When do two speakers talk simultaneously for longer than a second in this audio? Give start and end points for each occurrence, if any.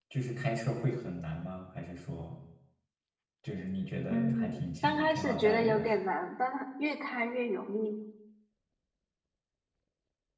4.1-5.9

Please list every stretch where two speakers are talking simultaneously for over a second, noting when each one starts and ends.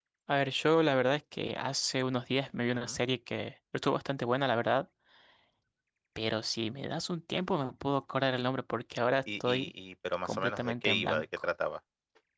10.2-11.5

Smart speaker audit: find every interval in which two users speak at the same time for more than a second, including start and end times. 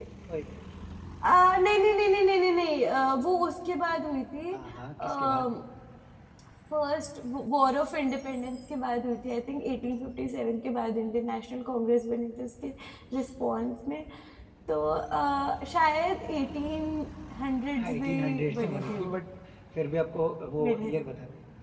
17.8-19.1

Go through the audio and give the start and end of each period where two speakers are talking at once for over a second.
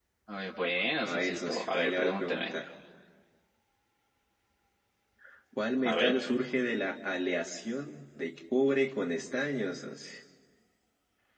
1.1-2.5

